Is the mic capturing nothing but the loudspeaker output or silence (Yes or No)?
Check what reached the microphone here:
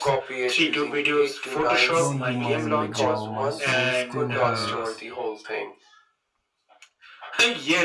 No